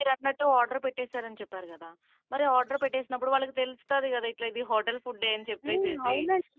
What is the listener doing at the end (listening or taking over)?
taking over